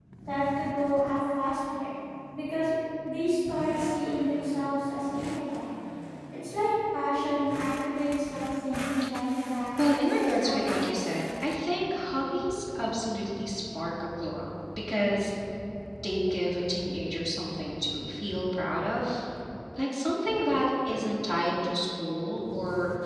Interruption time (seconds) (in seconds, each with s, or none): 9.8 s